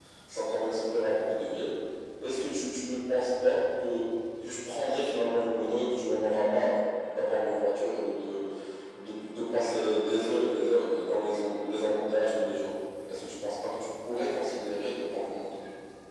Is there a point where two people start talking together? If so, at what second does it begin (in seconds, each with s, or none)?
none